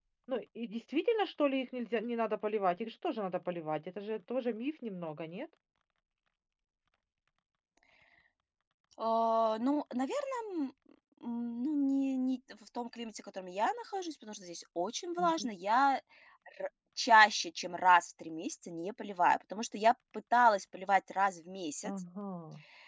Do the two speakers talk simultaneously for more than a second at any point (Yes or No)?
No